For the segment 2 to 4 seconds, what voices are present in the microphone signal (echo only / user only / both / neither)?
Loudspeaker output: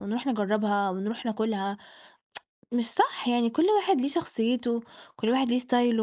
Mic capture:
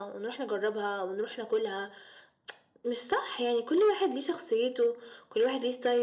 echo only